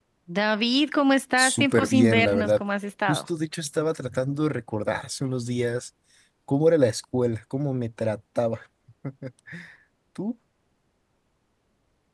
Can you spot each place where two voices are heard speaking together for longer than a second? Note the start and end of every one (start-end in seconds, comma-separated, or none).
1.4-2.6